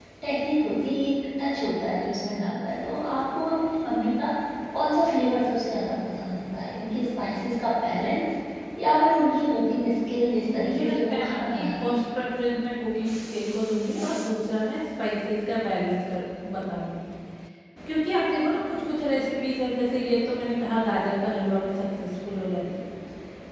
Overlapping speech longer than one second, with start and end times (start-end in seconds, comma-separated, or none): 10.5-11.9